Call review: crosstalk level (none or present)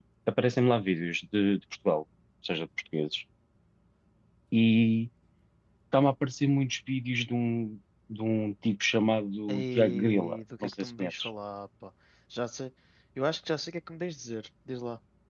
present